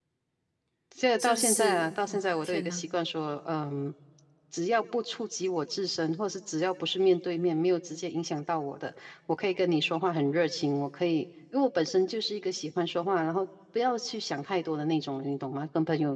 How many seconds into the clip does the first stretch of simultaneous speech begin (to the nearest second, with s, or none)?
1 s